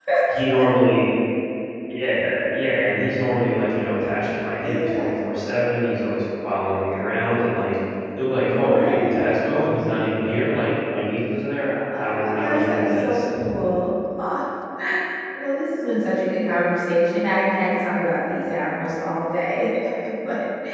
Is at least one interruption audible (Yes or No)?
Yes